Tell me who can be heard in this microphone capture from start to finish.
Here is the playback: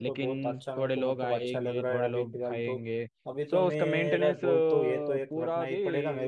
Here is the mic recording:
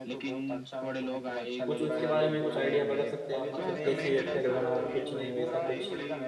both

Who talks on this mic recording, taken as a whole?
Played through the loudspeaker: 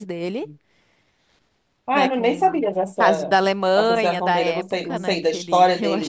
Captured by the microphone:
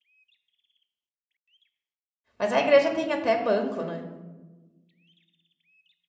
user only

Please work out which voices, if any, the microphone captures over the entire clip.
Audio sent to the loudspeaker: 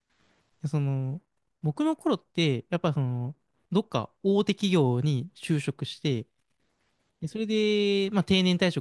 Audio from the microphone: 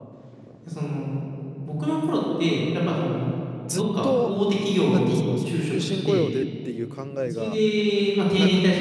both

